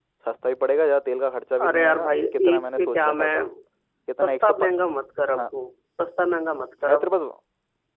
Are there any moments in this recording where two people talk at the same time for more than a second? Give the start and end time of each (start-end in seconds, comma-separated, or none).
1.6-3.3